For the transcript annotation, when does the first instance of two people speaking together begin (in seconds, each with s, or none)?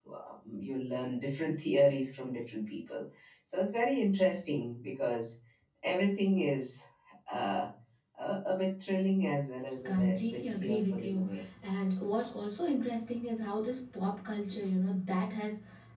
9.8 s